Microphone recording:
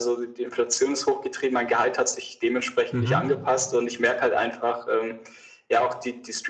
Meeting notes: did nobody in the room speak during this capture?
No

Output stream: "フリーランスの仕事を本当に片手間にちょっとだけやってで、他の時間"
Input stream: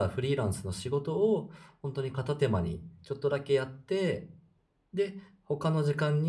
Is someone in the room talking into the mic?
No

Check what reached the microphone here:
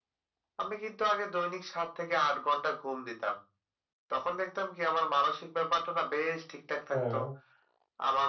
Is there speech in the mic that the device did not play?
Yes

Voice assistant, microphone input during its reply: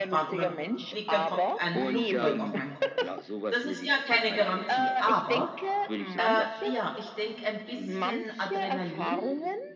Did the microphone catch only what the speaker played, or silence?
No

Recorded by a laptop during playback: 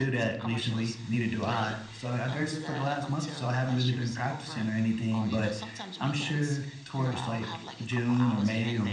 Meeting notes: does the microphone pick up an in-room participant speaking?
Yes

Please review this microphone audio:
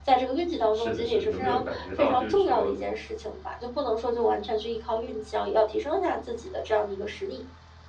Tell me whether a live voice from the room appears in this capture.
Yes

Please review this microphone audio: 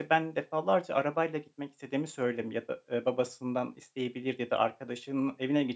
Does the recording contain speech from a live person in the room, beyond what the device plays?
Yes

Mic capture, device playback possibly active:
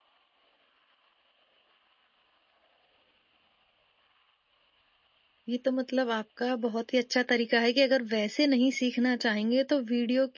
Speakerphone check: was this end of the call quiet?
No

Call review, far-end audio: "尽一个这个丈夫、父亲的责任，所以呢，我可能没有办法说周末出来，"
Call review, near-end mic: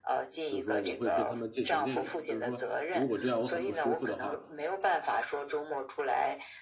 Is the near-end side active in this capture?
Yes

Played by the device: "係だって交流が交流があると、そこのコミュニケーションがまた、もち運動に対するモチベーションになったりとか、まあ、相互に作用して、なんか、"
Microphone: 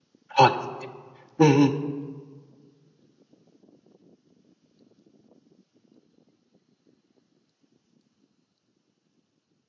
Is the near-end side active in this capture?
Yes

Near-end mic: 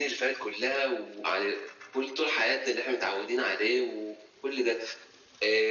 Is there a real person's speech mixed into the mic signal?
No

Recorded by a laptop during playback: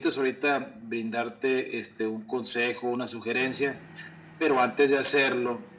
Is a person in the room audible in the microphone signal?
No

